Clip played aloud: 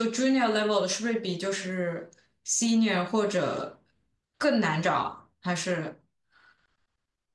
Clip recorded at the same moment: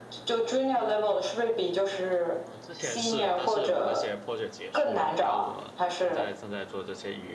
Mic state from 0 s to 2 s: echo only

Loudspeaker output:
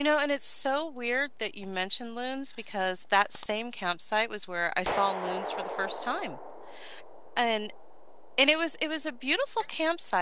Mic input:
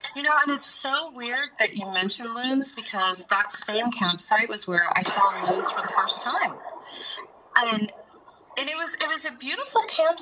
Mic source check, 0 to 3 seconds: echo only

